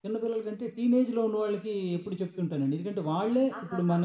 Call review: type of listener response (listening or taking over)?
listening